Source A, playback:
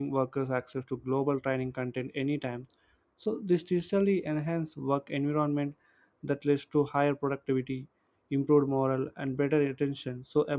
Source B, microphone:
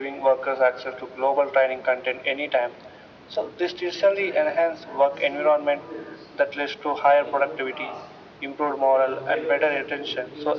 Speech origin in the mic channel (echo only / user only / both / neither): both